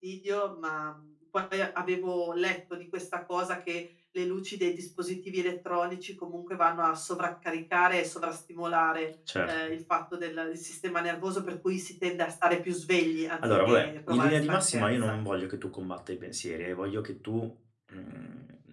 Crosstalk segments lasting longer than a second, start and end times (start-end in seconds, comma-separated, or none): 13.6-15.2